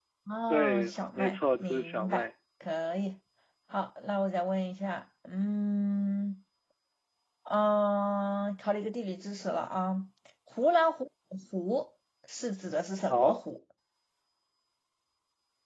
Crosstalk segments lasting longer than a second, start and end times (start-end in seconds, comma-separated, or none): 0.5-2.2